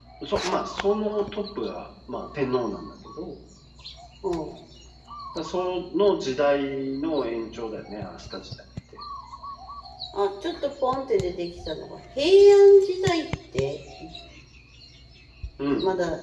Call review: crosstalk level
none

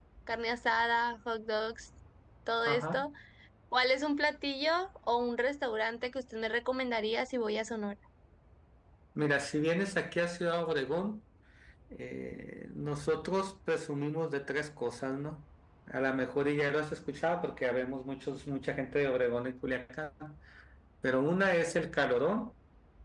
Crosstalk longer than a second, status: none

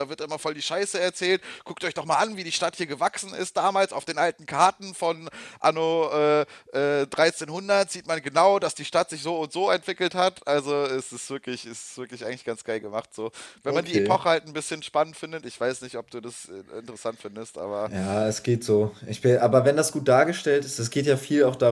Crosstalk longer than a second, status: none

